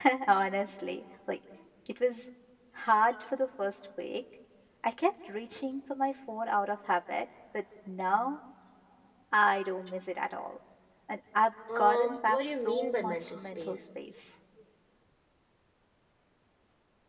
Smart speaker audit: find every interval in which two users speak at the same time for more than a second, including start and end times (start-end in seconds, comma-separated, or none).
11.8-13.8